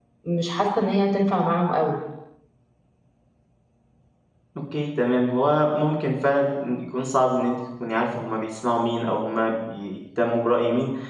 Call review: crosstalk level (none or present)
none